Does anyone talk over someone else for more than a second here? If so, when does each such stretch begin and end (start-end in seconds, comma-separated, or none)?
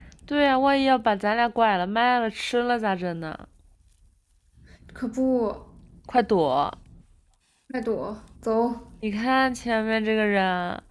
none